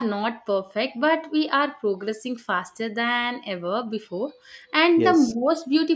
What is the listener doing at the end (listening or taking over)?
listening